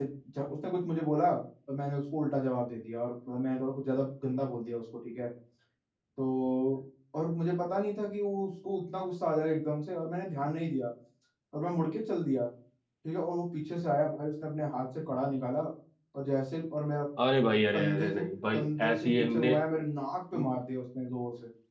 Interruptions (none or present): present